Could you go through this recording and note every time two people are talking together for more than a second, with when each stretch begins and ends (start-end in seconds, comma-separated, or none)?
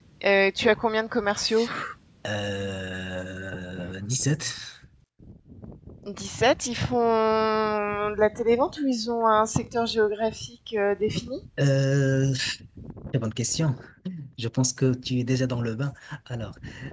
none